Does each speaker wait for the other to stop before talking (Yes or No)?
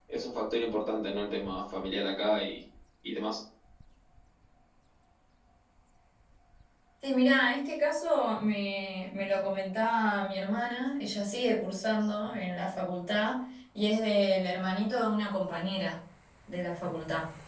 Yes